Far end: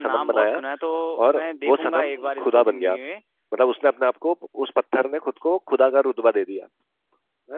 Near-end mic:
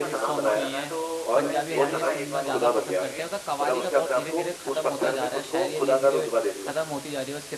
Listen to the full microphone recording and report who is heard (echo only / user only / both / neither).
both